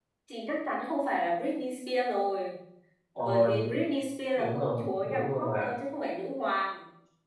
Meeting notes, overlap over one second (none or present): present